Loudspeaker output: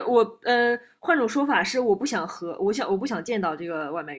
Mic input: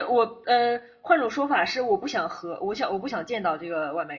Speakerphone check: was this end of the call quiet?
Yes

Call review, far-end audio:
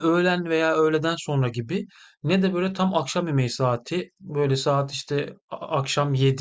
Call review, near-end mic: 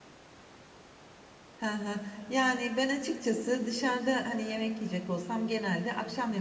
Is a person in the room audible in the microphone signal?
Yes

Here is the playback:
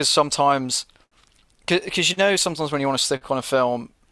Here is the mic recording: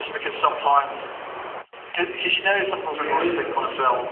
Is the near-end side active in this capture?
Yes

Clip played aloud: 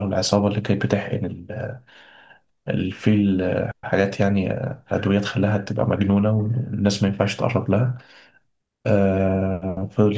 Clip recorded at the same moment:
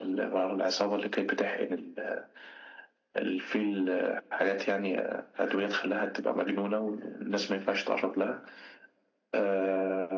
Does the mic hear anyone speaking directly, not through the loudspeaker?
No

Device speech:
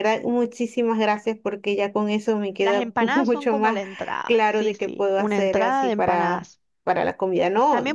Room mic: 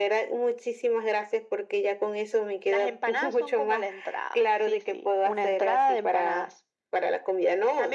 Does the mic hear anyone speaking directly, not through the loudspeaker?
No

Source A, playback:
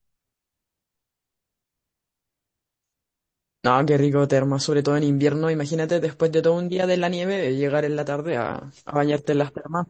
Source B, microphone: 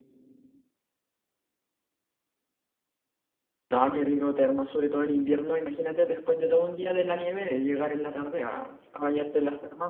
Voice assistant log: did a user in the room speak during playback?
No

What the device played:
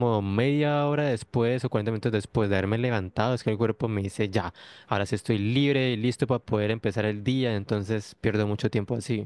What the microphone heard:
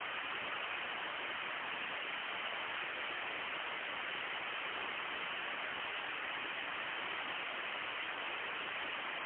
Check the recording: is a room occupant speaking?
No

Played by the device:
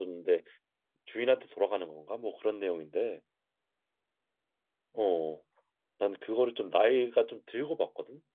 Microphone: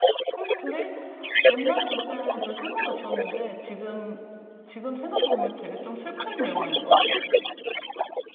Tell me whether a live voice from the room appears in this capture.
Yes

